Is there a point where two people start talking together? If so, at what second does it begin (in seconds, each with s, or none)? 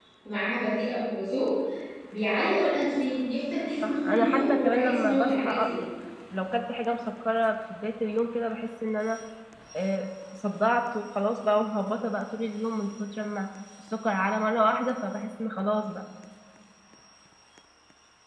3.8 s